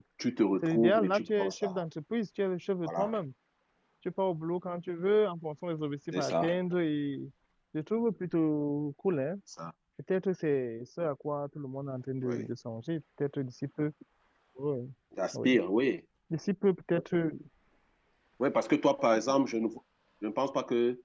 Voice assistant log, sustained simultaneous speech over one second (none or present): present